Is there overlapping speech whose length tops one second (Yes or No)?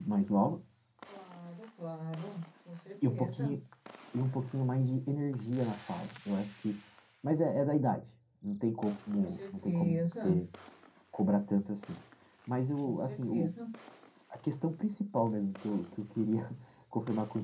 Yes